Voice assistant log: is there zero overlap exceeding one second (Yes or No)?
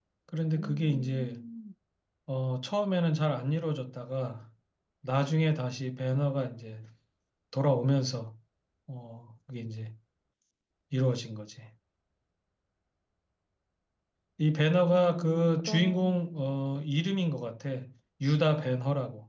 No